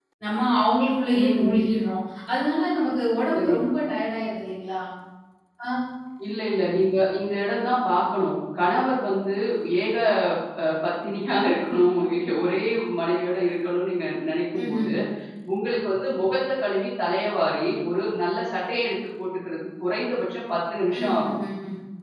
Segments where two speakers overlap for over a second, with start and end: none

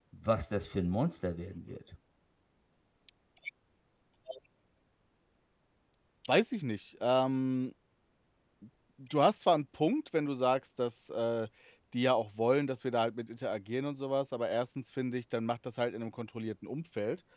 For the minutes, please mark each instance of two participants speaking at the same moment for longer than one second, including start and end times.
none

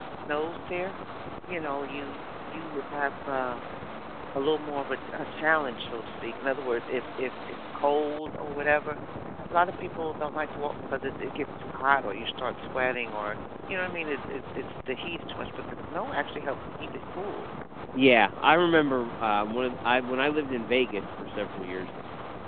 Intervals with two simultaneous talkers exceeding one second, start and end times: none

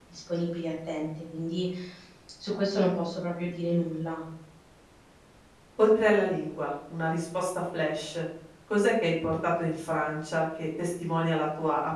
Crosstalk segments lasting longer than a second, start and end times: none

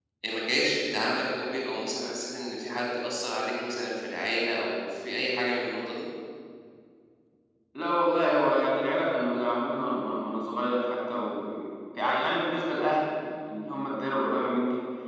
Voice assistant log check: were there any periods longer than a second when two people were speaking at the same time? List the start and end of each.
none

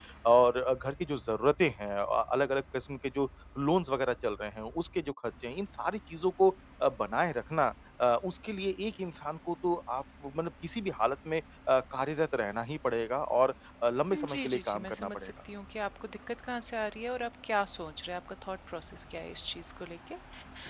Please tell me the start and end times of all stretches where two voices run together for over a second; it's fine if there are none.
14.1-15.3

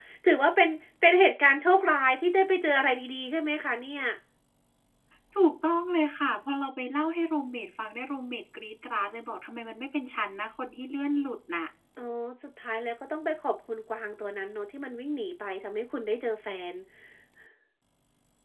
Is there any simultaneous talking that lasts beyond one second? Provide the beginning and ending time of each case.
none

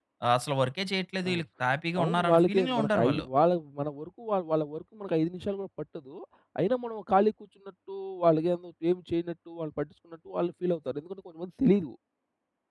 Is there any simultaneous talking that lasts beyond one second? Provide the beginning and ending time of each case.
2.0-3.2

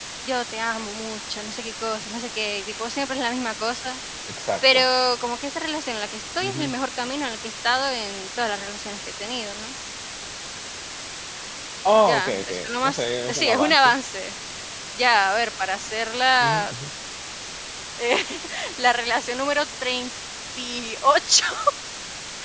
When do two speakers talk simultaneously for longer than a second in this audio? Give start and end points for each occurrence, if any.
12.1-13.9

